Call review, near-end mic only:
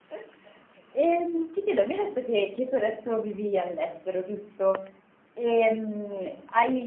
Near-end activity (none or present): present